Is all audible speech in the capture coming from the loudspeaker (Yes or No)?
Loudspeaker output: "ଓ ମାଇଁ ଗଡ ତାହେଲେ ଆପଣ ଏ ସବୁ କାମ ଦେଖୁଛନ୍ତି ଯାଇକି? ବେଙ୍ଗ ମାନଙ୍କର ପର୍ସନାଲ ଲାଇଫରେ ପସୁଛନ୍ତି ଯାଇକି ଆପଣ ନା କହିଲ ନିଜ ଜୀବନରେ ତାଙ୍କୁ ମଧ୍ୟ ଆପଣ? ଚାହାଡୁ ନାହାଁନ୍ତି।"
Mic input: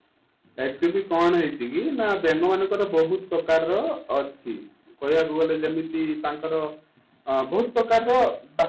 No